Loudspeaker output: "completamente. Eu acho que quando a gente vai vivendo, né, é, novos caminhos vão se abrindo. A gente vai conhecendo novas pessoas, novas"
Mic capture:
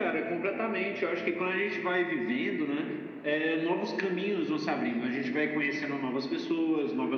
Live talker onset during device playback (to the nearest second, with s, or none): none